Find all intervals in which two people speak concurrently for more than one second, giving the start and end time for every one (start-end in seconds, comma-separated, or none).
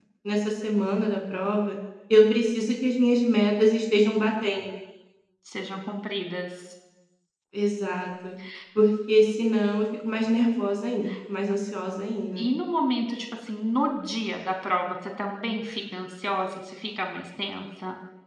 none